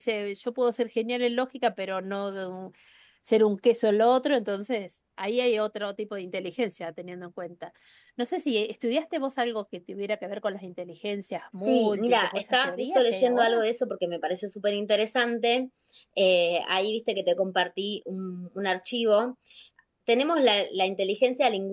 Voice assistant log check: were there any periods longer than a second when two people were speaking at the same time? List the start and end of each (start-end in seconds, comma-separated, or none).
11.7-13.6